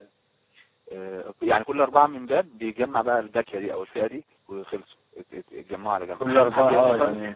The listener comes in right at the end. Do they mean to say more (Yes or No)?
Yes